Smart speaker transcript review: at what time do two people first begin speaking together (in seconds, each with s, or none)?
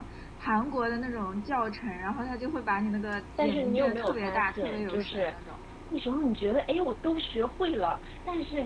3.4 s